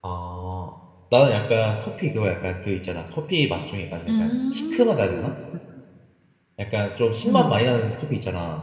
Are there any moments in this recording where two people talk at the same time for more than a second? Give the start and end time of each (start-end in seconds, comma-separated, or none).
4.1-5.3